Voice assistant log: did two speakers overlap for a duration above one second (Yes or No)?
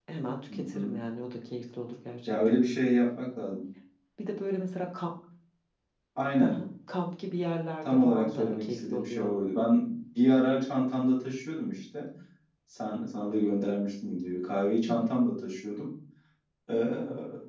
Yes